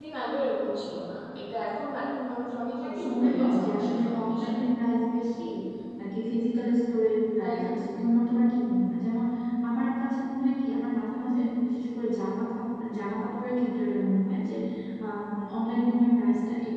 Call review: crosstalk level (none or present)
present